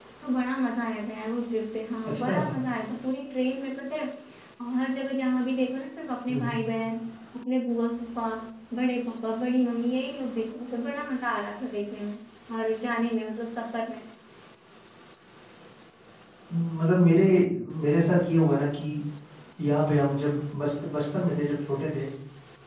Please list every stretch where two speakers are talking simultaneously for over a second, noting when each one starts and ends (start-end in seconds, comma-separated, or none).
none